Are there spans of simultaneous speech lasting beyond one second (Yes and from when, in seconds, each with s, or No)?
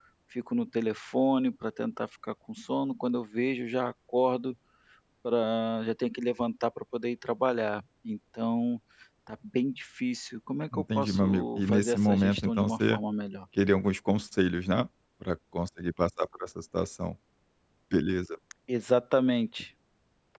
Yes, from 10.7 s